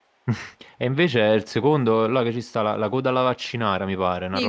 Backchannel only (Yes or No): No